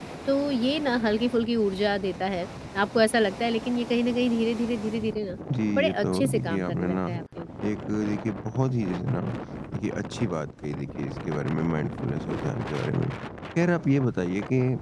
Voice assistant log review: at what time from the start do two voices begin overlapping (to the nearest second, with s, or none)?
6 s